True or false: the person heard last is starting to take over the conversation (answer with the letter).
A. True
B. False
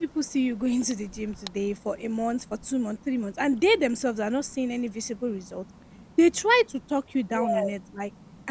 B